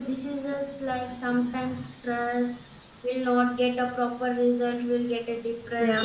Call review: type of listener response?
taking over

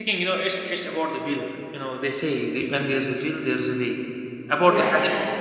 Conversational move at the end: taking over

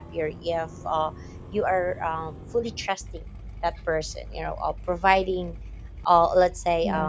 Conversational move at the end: taking over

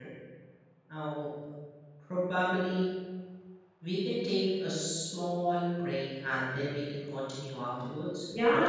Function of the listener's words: taking over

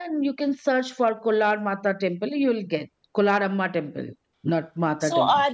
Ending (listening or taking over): taking over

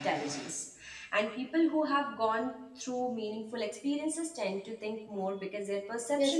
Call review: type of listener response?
taking over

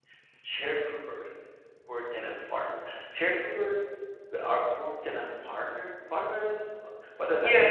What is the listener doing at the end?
taking over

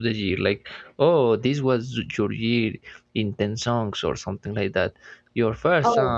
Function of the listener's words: taking over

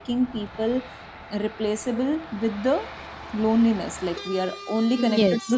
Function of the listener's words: listening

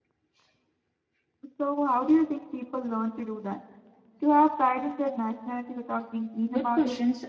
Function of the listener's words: taking over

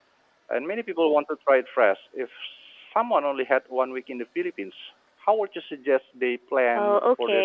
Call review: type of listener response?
taking over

